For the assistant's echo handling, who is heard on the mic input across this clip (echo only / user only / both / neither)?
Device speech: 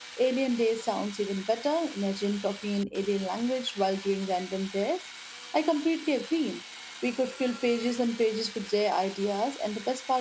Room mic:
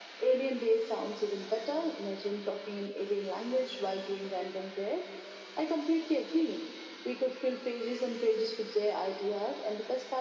echo only